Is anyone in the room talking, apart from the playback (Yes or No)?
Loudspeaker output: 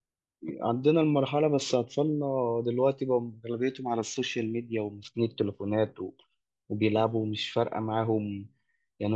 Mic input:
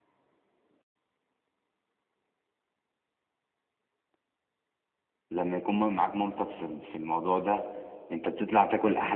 Yes